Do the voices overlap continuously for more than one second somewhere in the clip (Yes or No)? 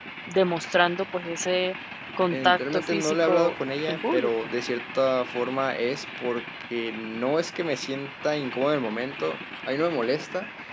Yes